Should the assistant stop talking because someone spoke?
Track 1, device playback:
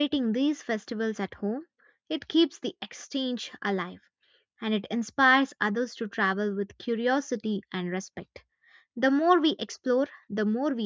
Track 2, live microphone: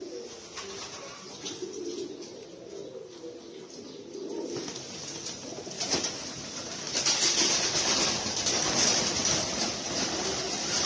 No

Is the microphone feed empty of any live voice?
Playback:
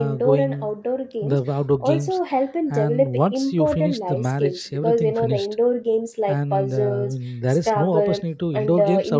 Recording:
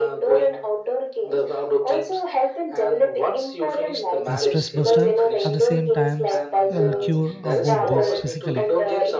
No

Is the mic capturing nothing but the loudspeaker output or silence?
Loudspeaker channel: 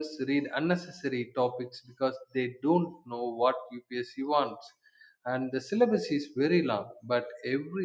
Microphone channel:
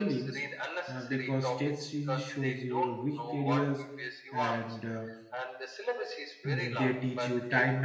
No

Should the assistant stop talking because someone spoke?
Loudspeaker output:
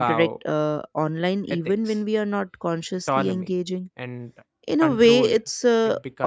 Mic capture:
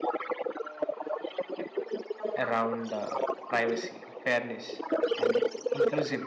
Yes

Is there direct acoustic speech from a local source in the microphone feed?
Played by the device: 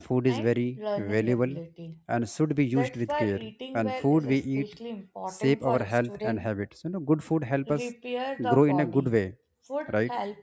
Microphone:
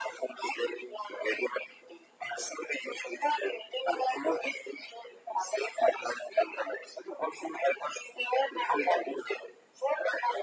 No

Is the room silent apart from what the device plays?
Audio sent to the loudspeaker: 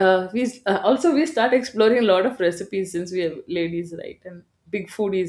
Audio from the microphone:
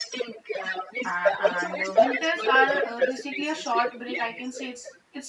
No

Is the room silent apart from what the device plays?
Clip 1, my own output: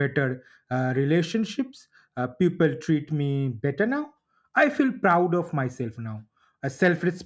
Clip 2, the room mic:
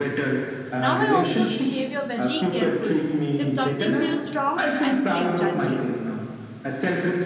No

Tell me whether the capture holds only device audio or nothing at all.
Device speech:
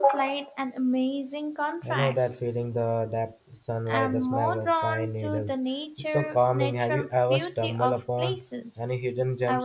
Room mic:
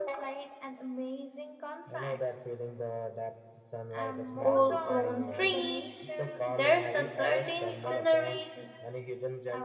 No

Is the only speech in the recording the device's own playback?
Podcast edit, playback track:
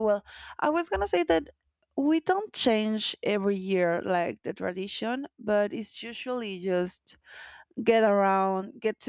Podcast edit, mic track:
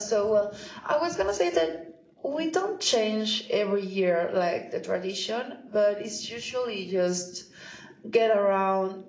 Yes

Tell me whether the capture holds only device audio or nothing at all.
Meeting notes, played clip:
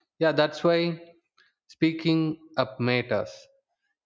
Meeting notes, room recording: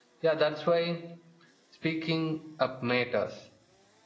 Yes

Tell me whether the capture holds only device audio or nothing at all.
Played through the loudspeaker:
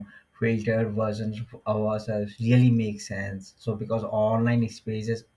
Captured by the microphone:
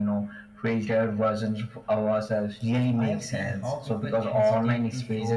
No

